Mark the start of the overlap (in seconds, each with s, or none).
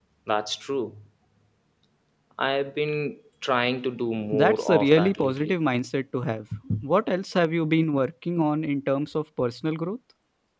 4.3 s